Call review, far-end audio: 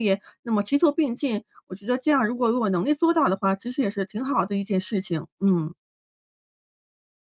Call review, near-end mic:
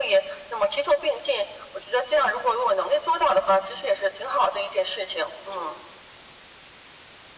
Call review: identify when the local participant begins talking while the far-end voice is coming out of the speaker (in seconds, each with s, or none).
none